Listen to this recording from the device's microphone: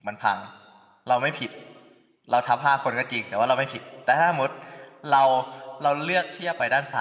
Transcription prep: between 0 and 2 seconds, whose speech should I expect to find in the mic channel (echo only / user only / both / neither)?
user only